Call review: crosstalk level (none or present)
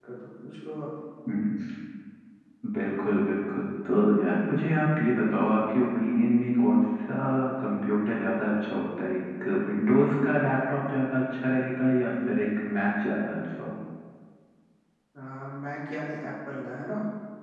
none